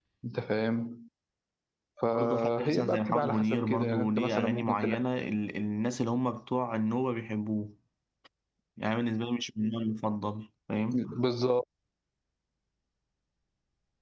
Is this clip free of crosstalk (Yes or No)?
No